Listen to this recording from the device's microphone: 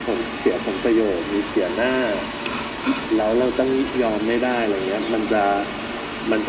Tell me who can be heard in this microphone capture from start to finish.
echo only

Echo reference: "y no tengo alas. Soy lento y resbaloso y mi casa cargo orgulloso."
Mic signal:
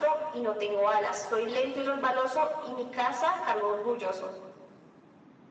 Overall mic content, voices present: echo only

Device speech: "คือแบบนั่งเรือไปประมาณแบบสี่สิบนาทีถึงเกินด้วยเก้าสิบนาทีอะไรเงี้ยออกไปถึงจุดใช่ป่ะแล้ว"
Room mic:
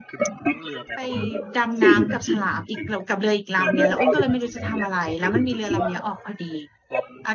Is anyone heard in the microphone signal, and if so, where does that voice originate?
both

